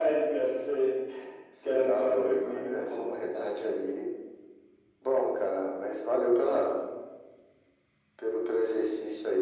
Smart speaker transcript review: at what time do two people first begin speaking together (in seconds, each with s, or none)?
1.6 s